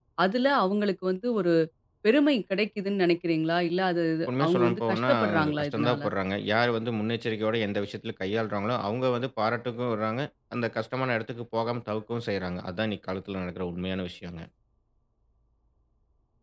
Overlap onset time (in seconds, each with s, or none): 4.3 s